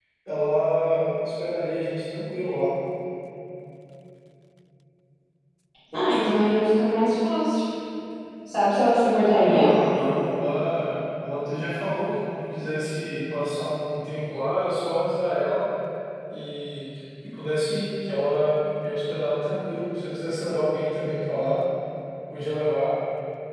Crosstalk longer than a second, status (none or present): none